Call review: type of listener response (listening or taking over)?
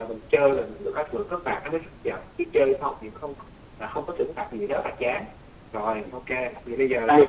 taking over